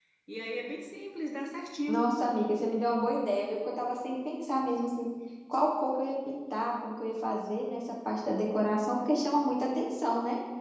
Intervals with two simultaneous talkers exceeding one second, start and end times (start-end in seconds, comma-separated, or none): none